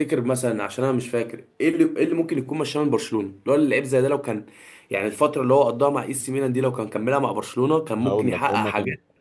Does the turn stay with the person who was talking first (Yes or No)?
No